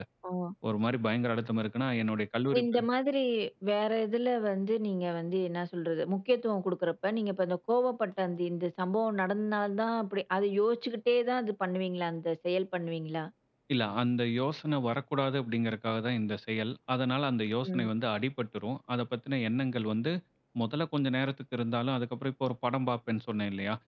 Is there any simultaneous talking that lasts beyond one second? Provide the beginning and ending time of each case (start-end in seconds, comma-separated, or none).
none